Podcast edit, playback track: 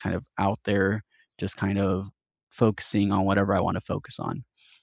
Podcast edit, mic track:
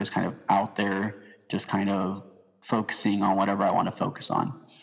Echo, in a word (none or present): present